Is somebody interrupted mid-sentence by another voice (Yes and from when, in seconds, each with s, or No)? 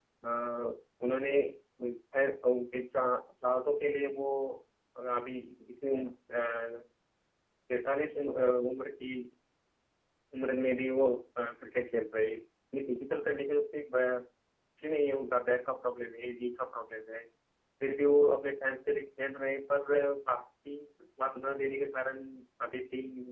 No